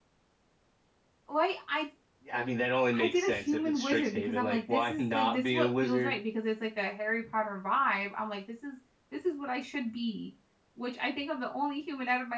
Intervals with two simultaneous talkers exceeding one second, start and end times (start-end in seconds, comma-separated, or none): 3.0-6.1